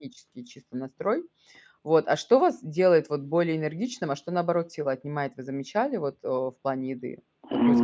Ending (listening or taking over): taking over